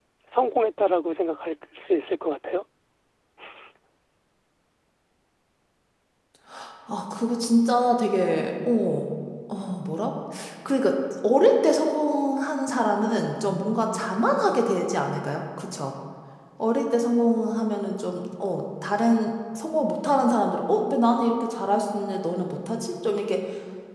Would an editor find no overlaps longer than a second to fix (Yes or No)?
Yes